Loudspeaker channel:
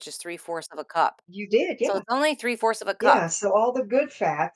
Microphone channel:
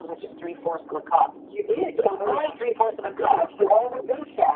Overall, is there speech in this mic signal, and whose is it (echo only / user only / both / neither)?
both